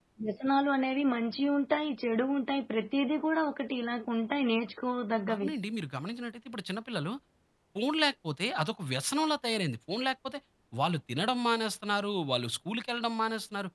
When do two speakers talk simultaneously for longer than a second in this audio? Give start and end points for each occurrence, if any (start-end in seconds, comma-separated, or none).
none